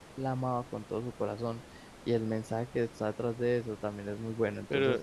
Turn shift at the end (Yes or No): Yes